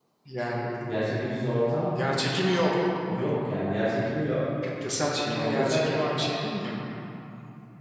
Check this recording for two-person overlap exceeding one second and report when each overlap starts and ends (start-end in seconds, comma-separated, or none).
5.0-6.3